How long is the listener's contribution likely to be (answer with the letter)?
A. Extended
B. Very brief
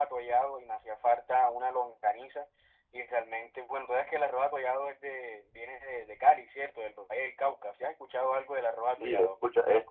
A